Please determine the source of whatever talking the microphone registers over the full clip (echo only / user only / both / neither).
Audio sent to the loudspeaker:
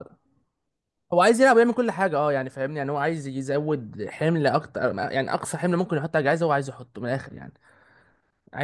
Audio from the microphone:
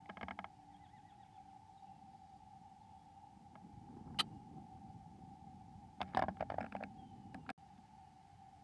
neither